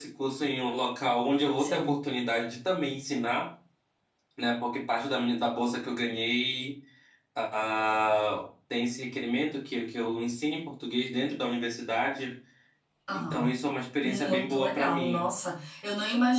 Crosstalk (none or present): present